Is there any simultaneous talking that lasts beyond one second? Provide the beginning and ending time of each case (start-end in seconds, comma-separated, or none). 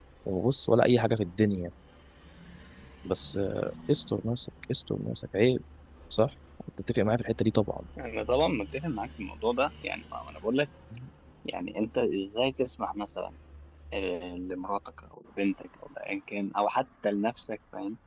none